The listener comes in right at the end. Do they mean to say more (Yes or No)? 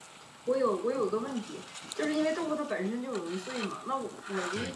No